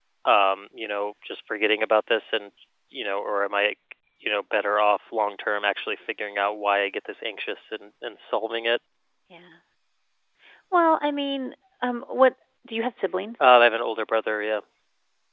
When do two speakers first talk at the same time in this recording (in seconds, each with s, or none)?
none